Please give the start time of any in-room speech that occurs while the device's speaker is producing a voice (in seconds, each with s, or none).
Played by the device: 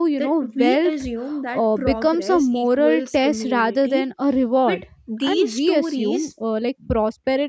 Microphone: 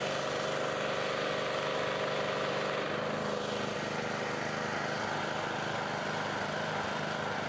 none